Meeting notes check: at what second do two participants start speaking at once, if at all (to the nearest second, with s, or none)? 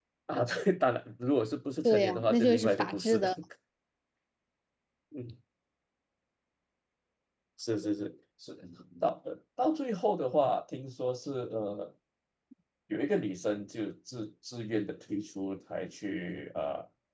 2 s